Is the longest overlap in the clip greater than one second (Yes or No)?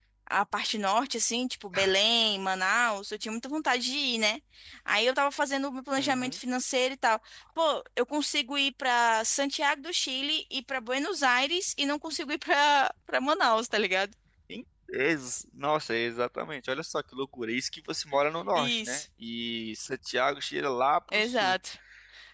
No